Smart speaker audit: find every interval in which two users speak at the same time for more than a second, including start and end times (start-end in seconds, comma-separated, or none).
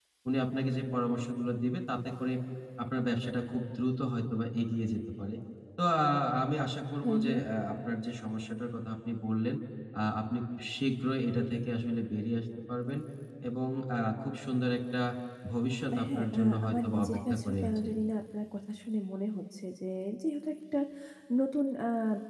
16.0-17.9